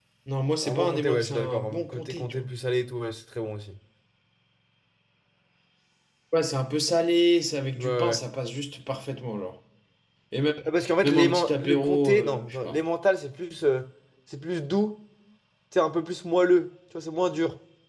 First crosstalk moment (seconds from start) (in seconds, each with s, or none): 0.6 s